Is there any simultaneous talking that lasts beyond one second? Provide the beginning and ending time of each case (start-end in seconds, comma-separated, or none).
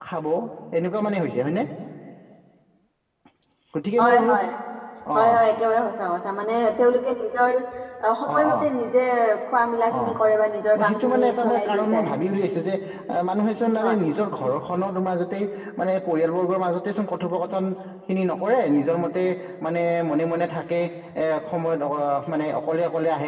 10.8-12.1